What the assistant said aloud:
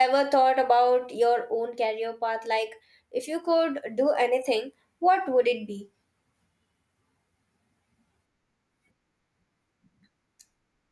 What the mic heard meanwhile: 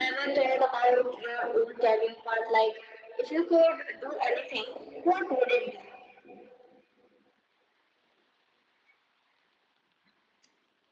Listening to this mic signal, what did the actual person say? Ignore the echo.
none

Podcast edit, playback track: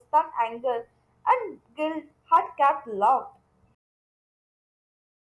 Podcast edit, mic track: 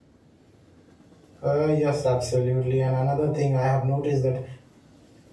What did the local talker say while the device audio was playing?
Uh, yes, absolutely. And another thing I have noticed that

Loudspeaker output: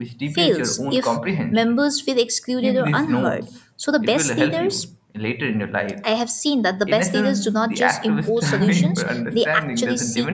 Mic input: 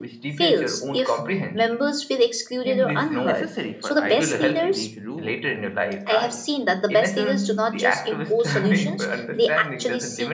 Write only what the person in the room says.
necessary for ideas to take root and thrive.

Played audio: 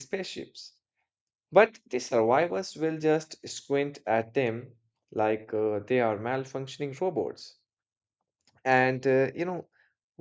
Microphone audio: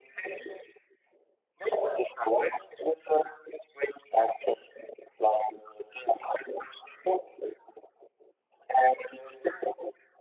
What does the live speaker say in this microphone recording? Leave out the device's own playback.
none

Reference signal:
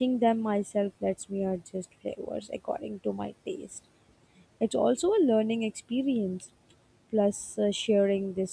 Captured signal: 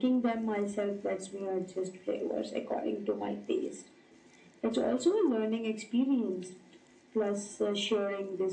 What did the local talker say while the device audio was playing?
none

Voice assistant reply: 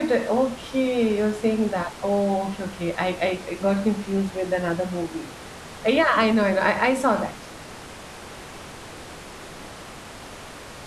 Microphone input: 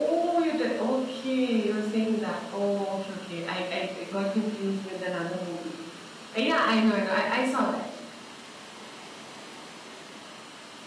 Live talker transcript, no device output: none

